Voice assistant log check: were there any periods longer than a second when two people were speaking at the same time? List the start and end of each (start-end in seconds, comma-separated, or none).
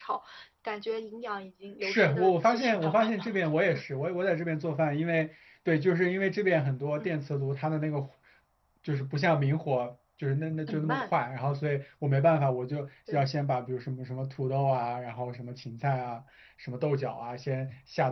1.8-3.4